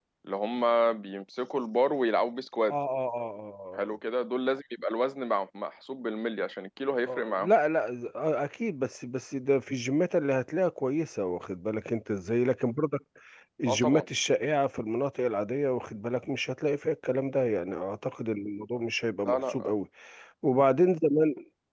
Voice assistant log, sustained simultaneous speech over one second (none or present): none